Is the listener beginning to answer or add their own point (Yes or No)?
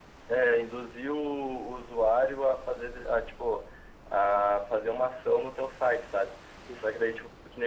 No